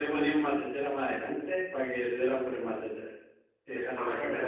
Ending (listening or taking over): taking over